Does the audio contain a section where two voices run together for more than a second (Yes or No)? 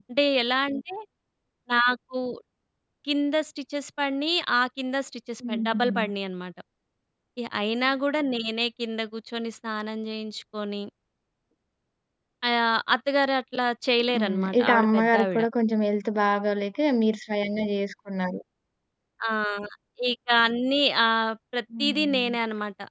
Yes